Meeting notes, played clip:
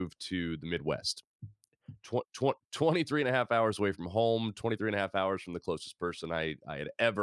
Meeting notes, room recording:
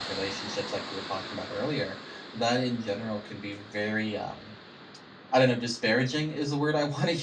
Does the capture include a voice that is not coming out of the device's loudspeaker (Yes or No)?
Yes